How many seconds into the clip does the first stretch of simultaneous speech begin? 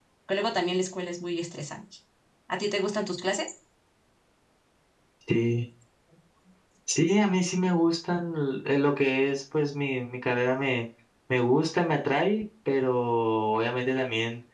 none

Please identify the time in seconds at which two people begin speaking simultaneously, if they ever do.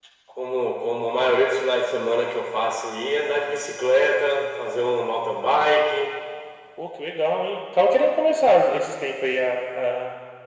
none

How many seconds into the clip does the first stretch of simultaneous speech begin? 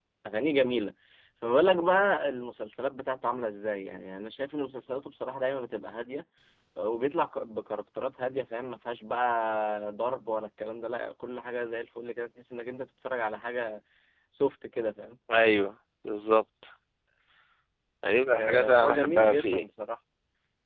18.3 s

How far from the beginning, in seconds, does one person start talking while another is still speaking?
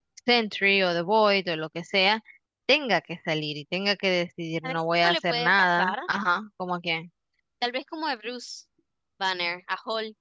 4.6 s

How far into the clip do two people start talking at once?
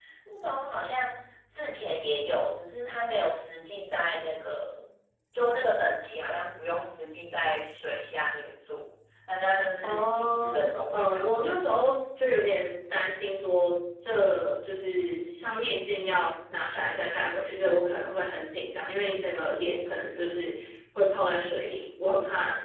9.8 s

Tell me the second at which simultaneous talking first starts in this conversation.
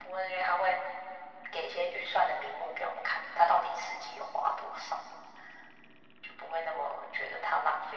none

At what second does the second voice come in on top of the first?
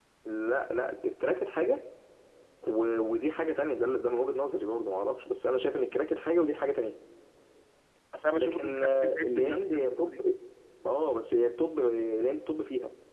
8.4 s

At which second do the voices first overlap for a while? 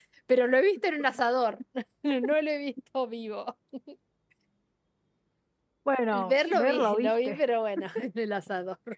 6.1 s

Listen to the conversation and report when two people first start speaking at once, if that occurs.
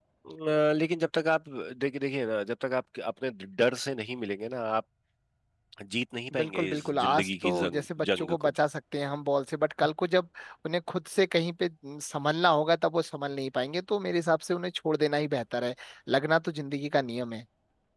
6.4 s

